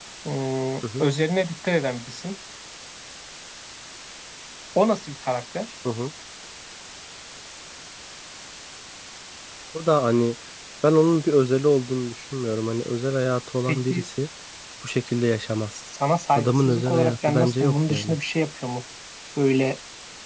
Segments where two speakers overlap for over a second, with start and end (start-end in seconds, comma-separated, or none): 16.4-18.2